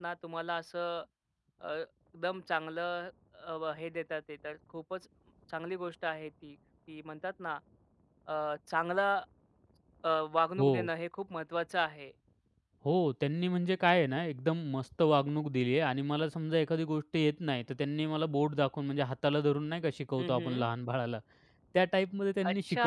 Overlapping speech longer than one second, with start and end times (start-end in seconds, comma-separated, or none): none